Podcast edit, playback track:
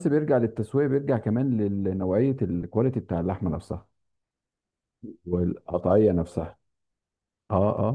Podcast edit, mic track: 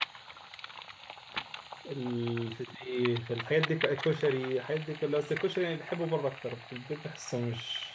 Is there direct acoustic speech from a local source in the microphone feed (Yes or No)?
Yes